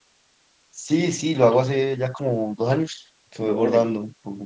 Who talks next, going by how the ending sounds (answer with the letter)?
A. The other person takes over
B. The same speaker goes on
B